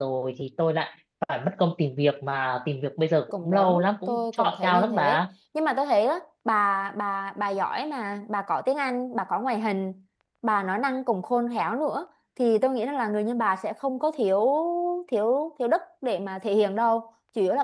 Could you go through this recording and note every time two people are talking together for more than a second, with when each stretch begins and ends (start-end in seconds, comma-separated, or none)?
3.3-5.2